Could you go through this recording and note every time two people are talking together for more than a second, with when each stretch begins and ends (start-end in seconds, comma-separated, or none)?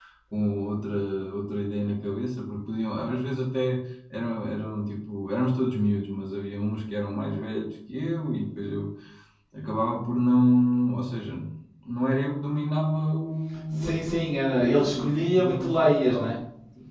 13.7-16.3